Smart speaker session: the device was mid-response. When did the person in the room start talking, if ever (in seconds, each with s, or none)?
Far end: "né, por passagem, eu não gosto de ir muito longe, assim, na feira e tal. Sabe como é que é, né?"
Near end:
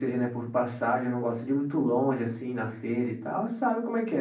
none